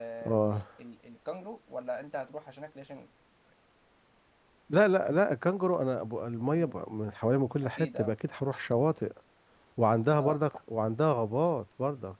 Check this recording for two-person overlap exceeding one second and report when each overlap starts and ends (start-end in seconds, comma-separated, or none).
none